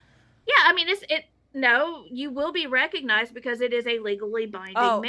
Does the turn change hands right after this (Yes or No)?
Yes